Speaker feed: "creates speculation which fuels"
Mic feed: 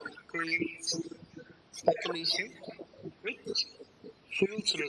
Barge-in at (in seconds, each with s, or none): none